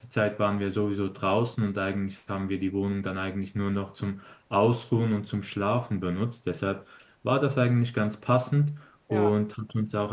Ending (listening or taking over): listening